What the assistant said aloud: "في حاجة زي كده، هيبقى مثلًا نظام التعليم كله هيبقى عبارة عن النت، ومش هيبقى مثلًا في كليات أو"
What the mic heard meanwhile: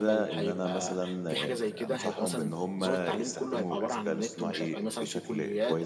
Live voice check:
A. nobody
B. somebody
B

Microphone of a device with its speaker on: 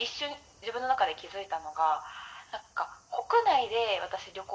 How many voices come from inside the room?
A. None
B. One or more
A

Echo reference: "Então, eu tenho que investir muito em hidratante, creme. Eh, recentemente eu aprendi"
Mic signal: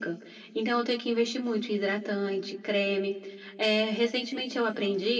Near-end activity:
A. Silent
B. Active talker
A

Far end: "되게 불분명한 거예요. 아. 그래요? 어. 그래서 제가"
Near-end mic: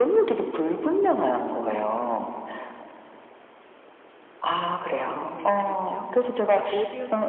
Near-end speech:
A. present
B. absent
A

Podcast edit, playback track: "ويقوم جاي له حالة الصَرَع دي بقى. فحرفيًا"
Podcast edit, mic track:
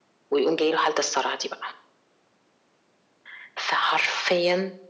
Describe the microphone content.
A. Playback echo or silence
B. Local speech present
A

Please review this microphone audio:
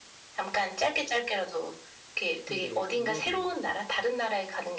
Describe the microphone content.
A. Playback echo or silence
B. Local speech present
B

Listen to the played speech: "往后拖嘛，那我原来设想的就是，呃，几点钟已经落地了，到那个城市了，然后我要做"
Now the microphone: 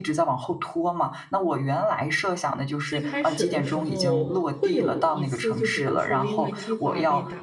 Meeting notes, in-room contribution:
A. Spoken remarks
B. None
A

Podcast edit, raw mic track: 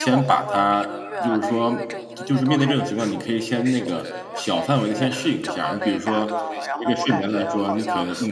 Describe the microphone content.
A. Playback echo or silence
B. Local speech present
B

